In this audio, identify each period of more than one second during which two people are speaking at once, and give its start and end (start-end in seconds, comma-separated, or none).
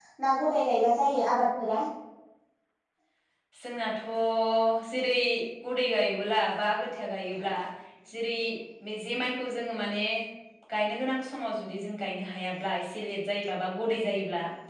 none